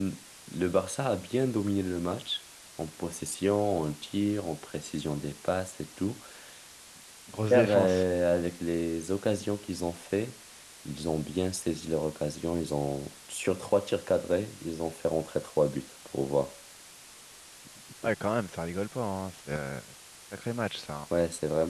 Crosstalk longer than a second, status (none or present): none